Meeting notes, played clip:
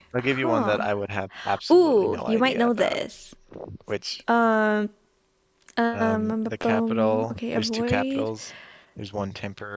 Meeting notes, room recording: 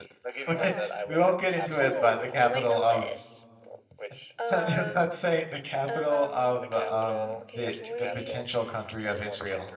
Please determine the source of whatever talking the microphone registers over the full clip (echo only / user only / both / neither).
both